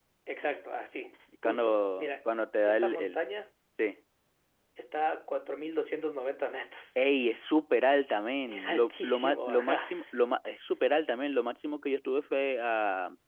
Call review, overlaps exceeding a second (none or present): present